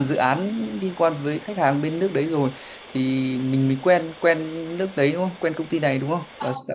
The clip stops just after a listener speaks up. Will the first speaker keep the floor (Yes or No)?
No